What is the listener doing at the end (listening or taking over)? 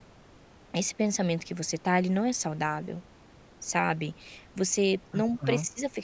listening